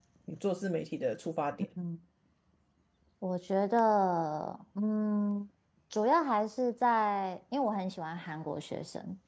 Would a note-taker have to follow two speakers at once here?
No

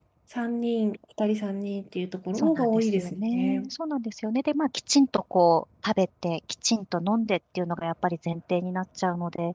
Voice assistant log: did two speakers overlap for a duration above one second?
Yes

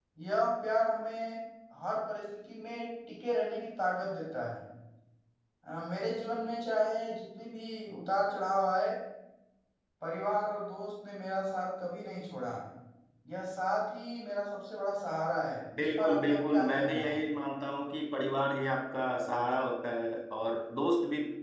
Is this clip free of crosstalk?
No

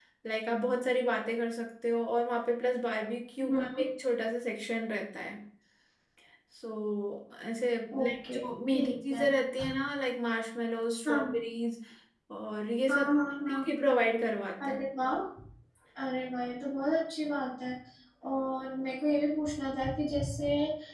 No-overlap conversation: No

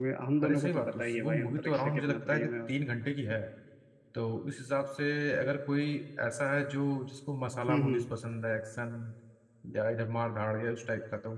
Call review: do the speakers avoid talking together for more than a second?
No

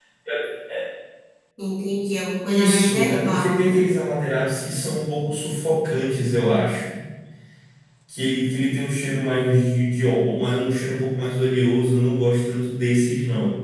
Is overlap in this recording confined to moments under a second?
No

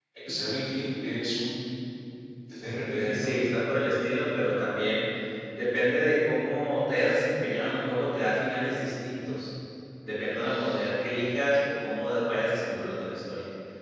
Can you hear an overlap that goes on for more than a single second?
No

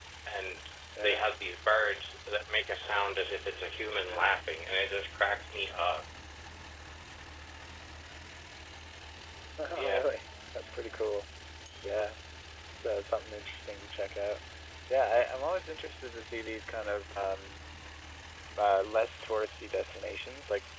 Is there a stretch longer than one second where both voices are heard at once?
No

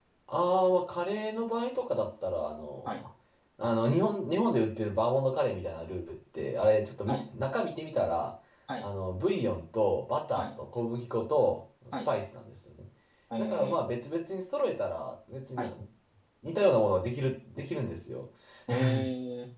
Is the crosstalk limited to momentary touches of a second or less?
Yes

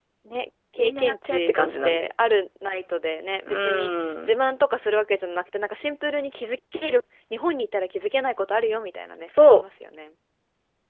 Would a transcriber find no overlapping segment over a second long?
No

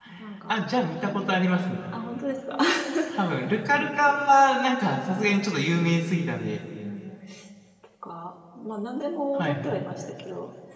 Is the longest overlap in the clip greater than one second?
No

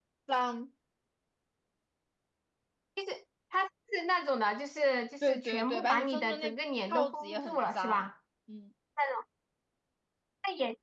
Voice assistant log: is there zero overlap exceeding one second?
No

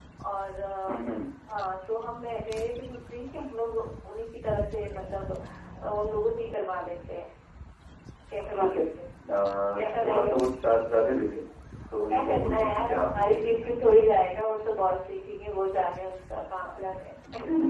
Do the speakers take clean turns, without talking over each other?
No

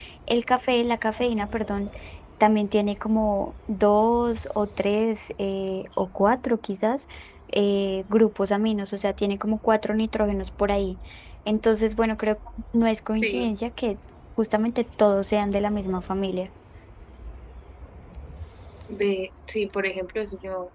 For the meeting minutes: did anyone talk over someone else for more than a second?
No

